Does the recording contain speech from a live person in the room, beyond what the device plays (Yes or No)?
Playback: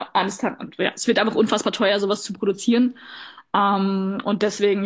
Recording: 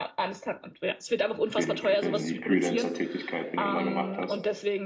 Yes